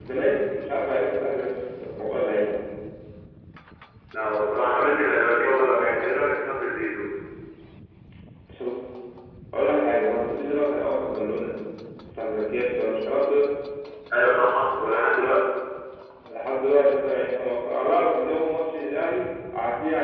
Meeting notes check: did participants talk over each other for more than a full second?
No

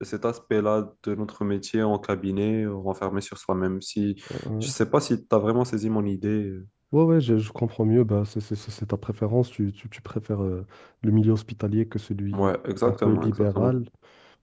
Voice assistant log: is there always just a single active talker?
No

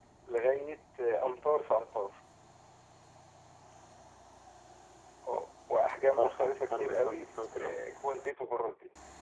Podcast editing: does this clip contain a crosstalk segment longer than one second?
Yes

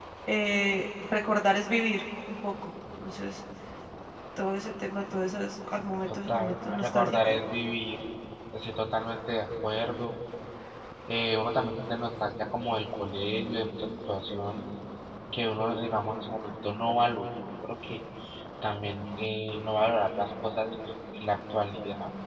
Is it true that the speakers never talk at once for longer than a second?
No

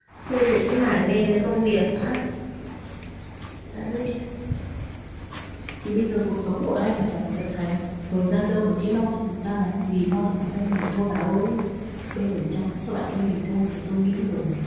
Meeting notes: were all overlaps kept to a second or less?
Yes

